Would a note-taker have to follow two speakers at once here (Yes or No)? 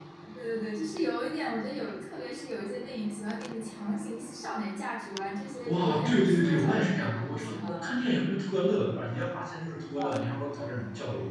Yes